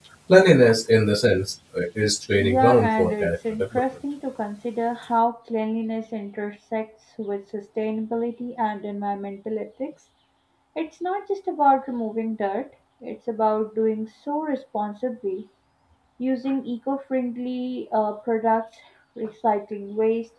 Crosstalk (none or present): present